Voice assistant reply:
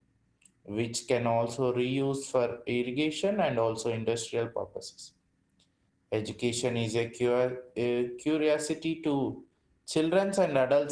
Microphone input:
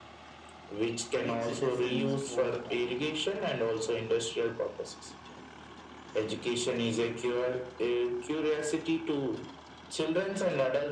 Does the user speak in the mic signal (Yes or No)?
Yes